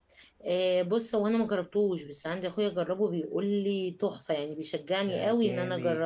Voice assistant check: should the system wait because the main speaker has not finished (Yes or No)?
No